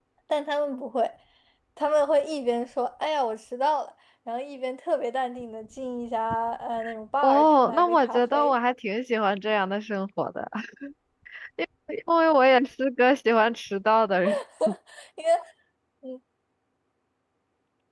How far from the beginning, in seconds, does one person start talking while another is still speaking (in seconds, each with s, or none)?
7.2 s